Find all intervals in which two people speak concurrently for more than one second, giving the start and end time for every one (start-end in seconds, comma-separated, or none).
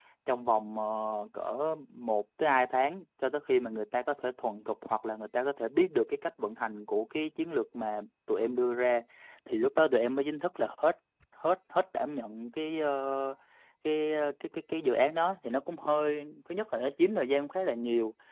none